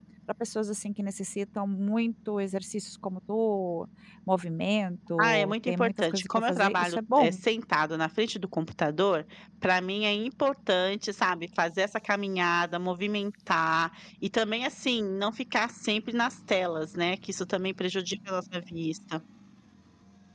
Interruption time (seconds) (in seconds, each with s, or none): 5.2 s